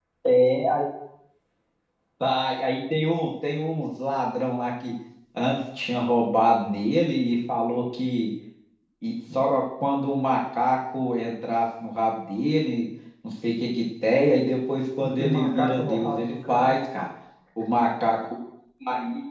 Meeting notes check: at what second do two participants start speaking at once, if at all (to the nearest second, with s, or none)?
15 s